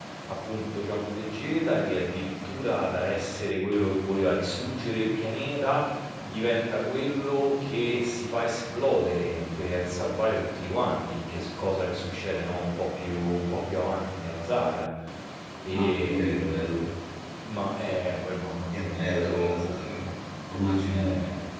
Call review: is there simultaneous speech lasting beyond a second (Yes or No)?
Yes